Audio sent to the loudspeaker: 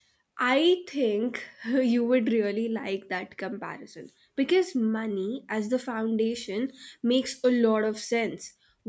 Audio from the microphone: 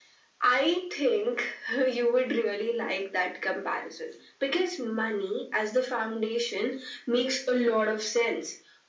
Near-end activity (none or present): none